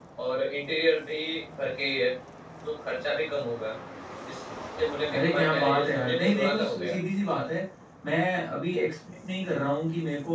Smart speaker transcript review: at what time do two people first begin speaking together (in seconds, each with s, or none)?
5.1 s